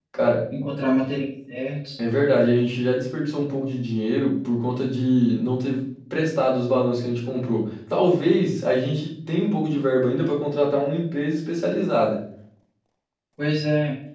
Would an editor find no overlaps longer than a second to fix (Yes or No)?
Yes